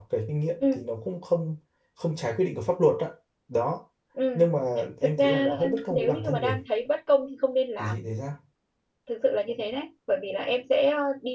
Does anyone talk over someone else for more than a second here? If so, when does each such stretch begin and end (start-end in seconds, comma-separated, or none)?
5.0-6.6